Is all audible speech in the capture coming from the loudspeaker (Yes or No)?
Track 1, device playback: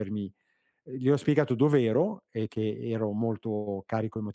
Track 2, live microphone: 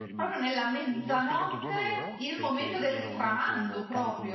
No